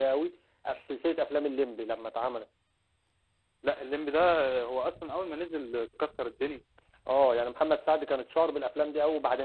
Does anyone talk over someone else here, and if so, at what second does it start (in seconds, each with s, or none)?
none